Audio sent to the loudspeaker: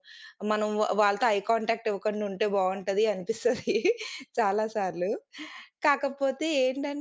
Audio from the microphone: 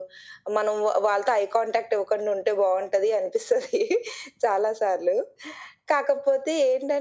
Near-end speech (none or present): none